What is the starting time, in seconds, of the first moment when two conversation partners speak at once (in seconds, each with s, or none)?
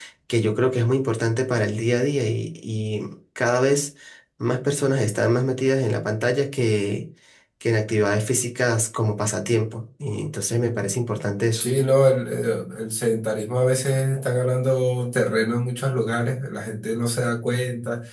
none